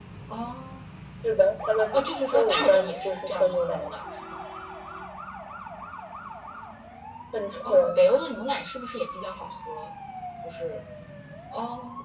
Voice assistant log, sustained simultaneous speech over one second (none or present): present